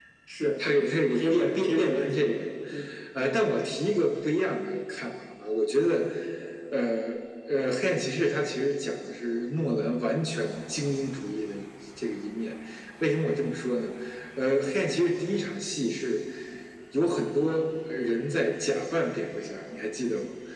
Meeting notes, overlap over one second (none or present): present